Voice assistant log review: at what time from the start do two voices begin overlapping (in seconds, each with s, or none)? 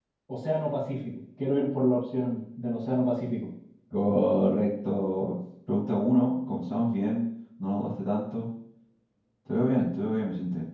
none